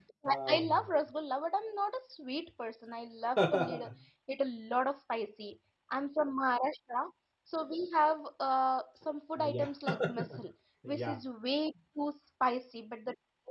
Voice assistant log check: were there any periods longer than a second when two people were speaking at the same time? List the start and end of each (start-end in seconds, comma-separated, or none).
none